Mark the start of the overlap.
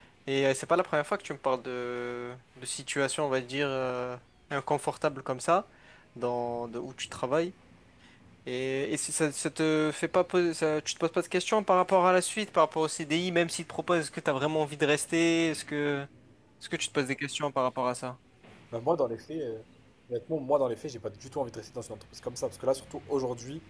none

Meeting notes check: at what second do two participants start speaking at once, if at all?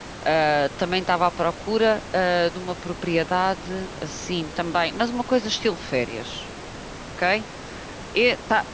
none

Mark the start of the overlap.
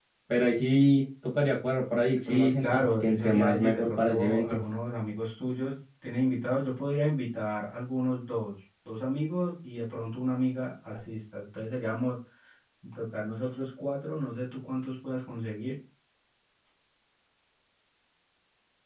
2.1 s

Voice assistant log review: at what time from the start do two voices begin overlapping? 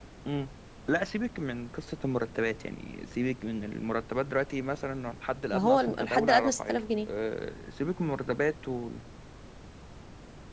5.5 s

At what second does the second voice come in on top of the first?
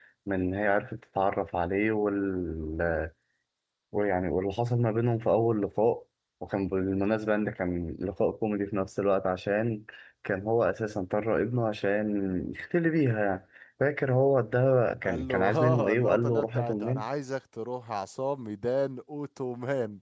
15.0 s

